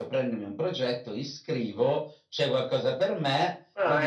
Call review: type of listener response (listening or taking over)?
listening